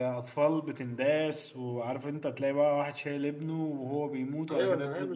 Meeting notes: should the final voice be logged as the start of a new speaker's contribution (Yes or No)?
Yes